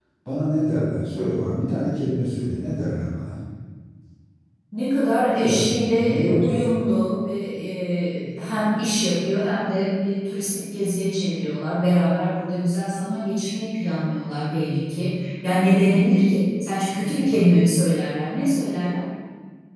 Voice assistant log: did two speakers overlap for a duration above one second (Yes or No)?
Yes